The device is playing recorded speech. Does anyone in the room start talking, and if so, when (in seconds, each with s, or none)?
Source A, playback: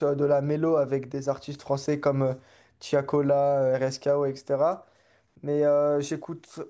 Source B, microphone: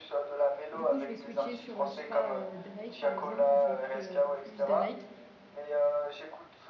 0.7 s